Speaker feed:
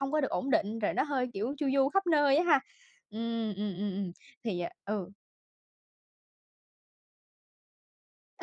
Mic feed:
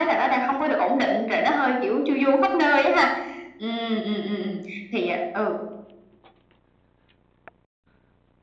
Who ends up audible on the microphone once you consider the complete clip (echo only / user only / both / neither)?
echo only